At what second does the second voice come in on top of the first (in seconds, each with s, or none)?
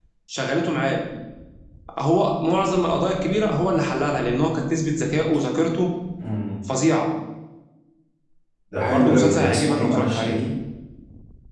8.9 s